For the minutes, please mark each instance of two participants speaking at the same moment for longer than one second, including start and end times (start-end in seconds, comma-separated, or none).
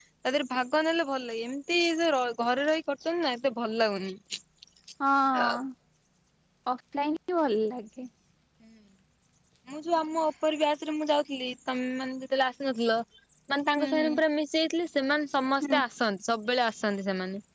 none